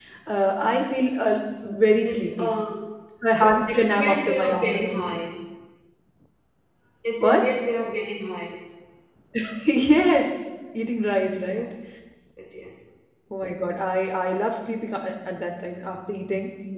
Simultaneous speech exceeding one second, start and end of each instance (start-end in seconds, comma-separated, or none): 3.4-5.2